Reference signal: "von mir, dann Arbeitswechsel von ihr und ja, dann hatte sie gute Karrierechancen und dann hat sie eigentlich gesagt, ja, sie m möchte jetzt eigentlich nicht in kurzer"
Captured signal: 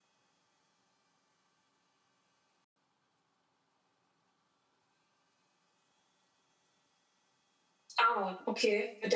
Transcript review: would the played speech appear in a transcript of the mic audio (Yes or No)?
No